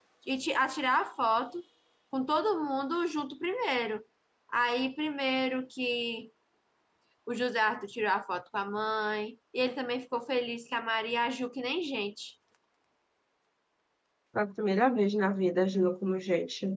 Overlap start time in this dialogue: none

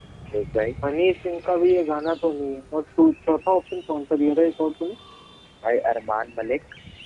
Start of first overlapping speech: none

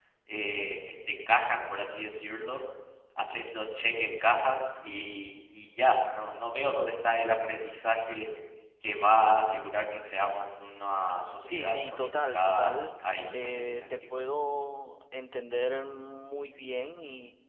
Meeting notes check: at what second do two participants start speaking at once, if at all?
11.4 s

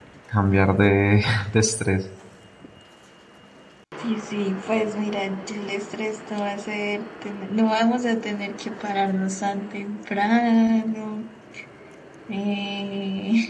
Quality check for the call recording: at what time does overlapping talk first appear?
none

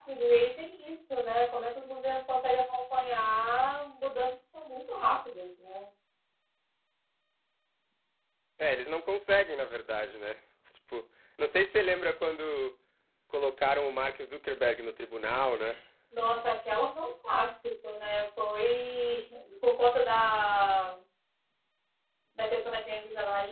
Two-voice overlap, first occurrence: none

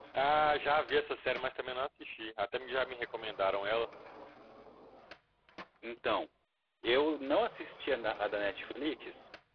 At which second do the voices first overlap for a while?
none

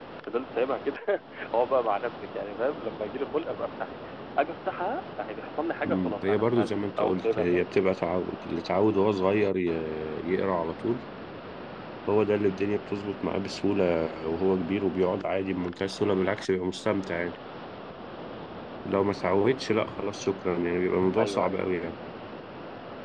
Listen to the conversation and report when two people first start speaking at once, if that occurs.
5.8 s

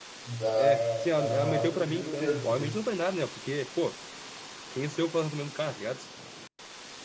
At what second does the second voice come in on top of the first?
0.6 s

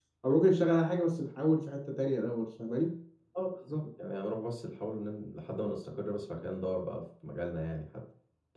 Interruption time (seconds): none

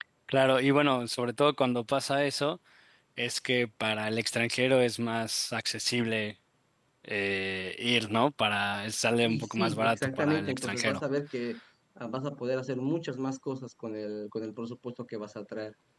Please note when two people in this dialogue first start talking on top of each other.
9.2 s

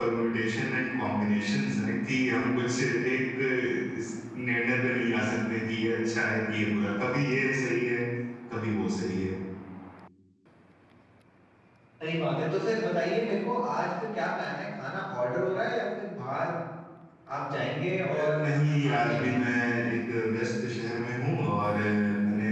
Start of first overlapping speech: 18.0 s

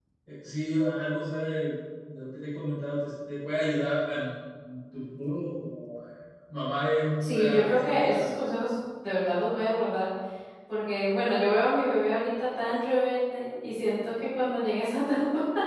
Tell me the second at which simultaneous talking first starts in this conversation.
7.2 s

